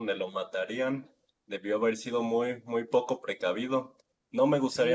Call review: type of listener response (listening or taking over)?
taking over